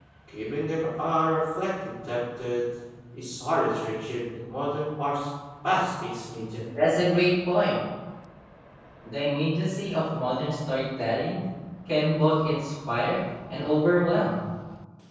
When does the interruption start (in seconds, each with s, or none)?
none